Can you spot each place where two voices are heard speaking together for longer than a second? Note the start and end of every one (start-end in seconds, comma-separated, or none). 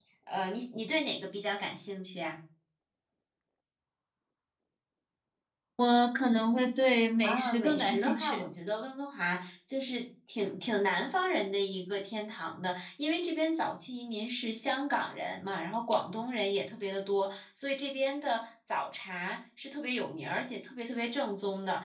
7.2-8.4